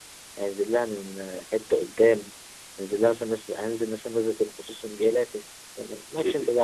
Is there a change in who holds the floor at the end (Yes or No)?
Yes